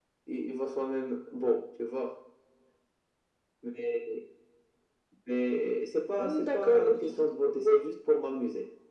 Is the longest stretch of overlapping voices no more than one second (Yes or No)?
No